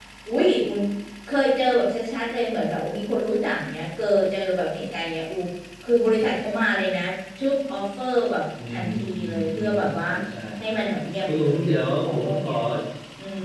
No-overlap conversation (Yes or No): No